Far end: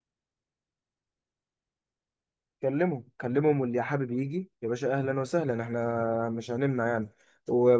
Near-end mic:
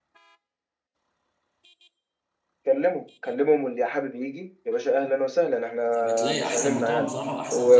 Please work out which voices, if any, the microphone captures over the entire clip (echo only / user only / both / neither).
both